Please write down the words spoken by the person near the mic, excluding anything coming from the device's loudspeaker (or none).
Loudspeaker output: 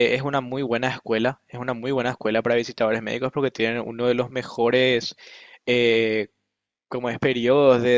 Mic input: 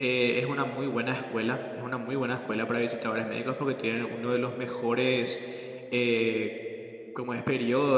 none